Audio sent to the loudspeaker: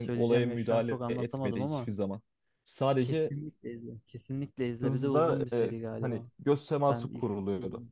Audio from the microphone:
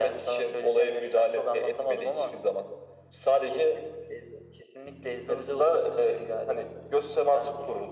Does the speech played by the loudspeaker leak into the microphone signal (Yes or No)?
Yes